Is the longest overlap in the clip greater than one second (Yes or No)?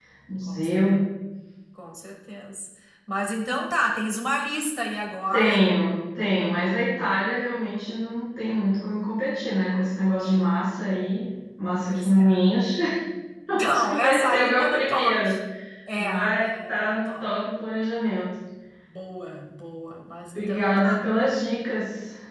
Yes